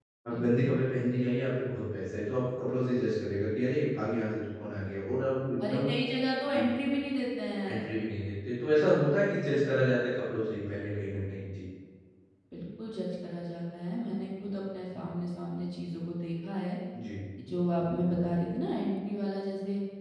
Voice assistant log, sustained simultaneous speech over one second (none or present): none